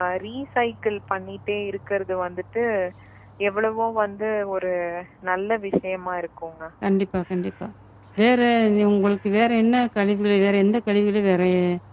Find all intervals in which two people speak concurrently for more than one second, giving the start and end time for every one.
none

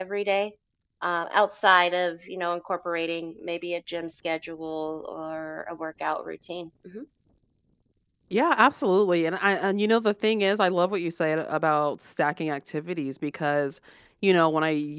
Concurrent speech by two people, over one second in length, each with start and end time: none

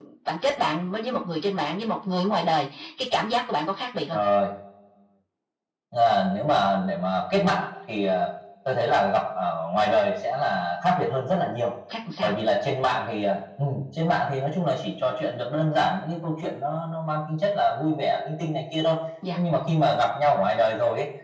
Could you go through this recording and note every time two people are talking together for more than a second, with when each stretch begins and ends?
none

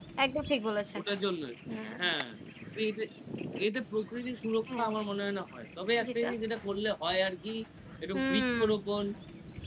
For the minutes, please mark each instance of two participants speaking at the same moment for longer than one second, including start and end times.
none

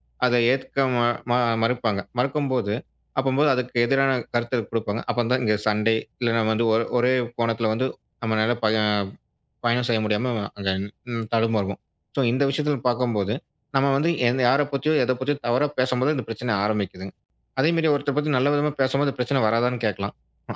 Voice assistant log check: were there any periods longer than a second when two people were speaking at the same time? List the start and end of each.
none

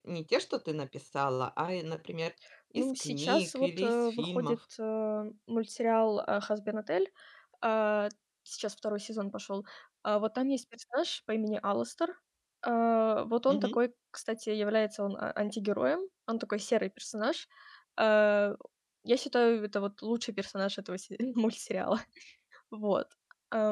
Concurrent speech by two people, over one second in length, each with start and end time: 2.8-4.6

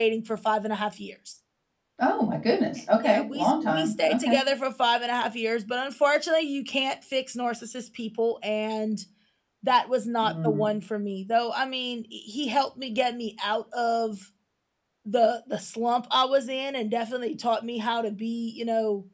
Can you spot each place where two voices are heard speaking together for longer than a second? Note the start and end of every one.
3.0-4.4

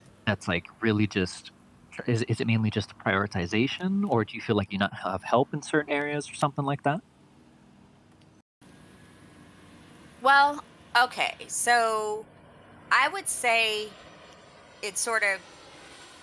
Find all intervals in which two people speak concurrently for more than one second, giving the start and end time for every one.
none

